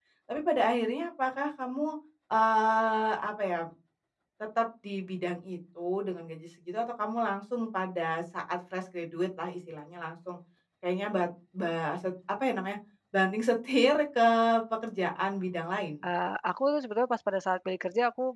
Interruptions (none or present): none